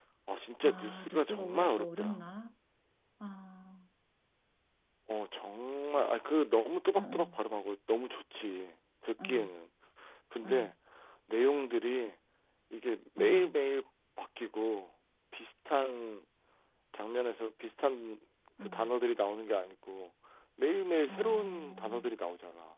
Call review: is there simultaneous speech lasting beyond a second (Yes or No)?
Yes